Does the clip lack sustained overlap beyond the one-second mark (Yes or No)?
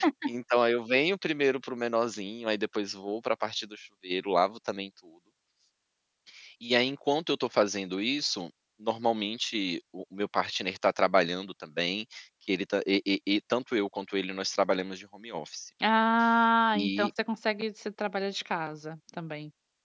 Yes